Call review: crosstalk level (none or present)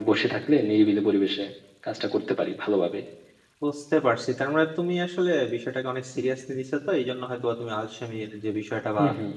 none